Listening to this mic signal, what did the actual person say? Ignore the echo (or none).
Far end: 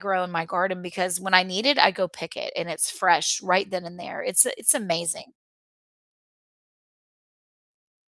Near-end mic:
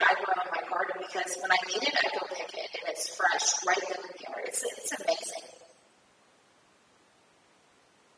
none